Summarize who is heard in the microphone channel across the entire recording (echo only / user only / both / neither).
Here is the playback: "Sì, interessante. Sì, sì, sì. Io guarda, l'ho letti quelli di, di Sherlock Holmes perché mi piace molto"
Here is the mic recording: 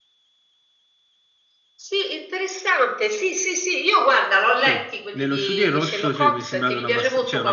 both